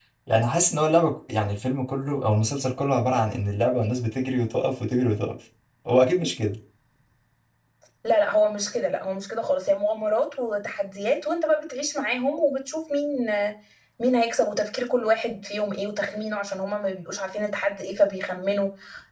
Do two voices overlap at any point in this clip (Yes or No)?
No